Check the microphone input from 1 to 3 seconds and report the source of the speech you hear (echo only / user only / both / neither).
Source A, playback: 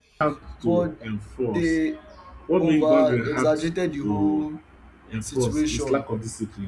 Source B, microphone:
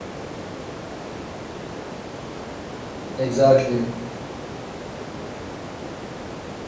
neither